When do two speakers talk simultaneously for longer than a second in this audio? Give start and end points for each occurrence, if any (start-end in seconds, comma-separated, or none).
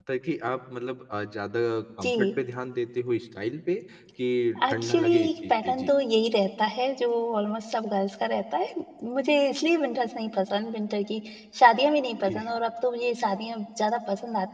4.7-5.9